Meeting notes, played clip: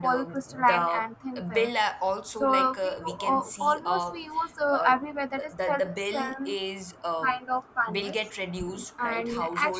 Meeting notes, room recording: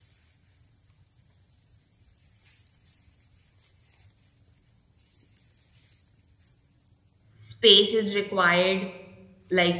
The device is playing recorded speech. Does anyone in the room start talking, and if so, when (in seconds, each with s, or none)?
7.4 s